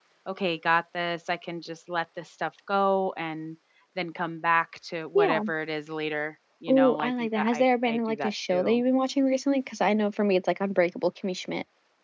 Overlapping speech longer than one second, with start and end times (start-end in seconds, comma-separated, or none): 6.7-8.8